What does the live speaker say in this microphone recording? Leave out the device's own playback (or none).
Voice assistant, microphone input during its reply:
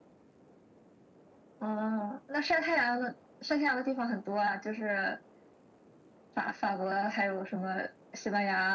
none